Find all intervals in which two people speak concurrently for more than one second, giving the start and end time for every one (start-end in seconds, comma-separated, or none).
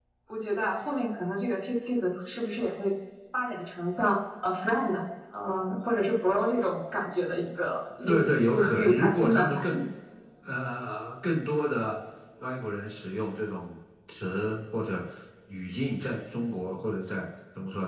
8.1-9.8